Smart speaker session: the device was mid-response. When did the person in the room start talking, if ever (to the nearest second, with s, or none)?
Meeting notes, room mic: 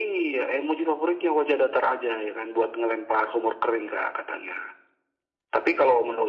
none